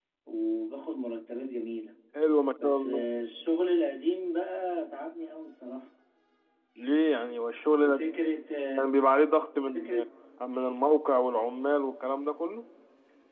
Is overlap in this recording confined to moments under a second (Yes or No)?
Yes